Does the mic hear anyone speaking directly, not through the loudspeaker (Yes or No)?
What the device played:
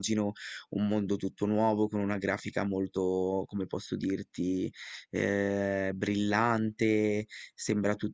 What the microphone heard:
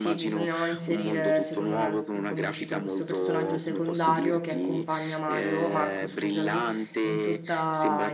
Yes